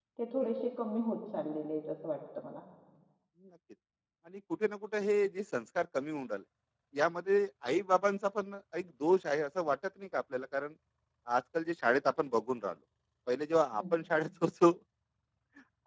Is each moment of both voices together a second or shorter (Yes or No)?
Yes